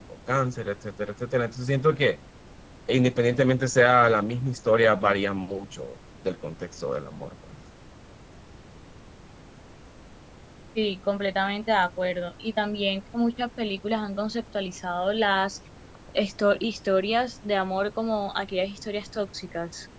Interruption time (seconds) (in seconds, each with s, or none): none